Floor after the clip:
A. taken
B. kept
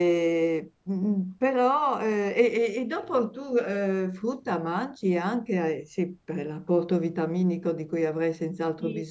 A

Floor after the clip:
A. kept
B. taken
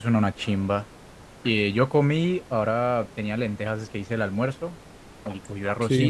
A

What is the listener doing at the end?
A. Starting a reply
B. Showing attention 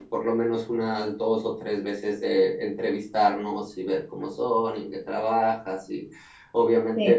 B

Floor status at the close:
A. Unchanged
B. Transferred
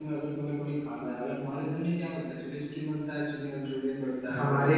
B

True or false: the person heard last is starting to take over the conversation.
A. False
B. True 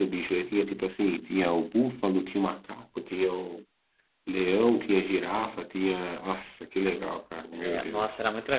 B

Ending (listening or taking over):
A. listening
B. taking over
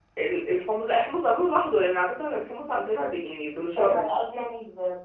B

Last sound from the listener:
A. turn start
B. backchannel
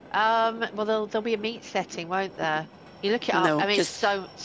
B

